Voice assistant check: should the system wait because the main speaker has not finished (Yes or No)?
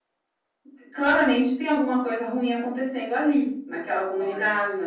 Yes